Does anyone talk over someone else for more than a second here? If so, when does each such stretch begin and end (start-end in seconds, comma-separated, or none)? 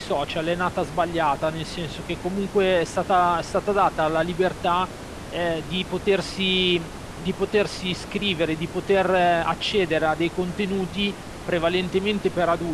none